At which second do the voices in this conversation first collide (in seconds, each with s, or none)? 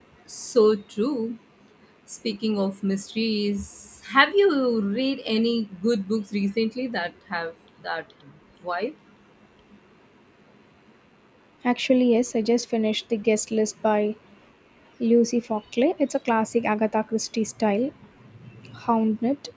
none